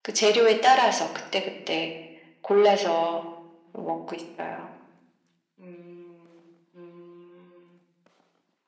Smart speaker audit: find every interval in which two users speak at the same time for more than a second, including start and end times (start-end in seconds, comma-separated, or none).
none